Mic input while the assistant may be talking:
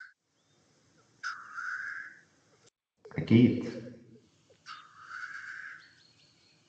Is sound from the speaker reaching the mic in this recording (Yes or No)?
No